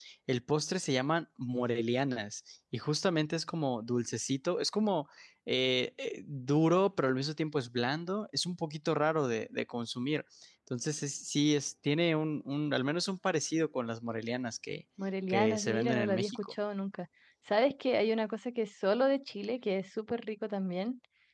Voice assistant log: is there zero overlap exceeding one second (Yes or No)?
No